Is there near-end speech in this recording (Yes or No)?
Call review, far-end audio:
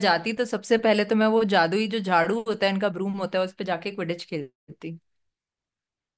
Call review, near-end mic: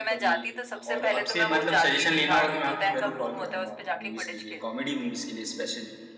Yes